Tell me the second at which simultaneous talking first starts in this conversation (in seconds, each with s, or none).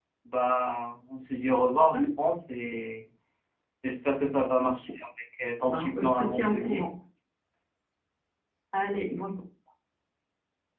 5.6 s